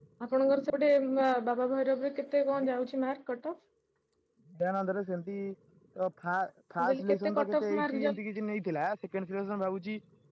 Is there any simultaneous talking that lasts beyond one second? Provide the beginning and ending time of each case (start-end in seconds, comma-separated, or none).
6.8-8.2